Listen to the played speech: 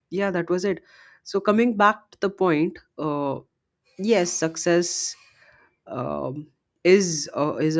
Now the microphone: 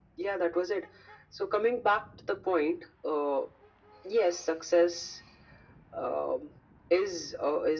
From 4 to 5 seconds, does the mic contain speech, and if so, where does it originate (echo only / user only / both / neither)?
echo only